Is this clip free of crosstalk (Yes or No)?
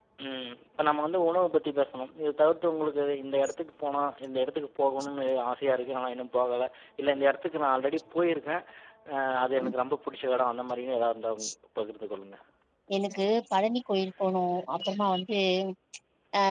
Yes